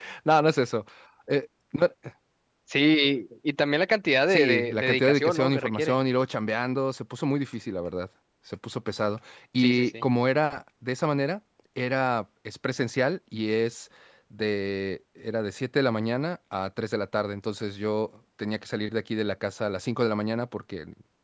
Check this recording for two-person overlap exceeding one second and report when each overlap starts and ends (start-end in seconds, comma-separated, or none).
4.3-6.0